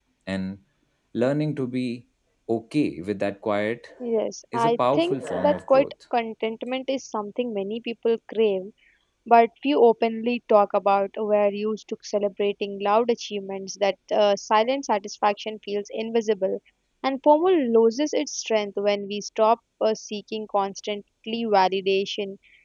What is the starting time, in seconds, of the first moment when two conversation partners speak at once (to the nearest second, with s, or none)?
5 s